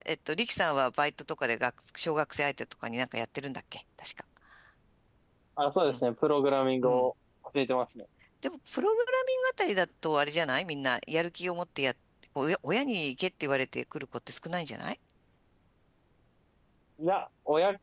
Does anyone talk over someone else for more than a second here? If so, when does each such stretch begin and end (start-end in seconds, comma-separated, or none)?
none